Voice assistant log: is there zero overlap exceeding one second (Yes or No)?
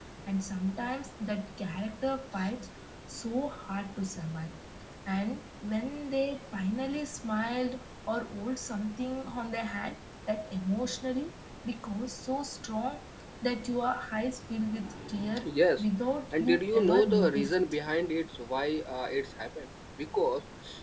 No